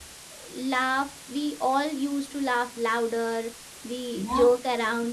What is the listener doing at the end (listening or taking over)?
listening